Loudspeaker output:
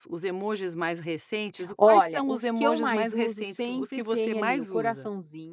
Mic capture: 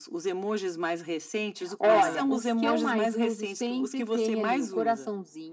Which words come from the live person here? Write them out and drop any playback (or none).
Aham.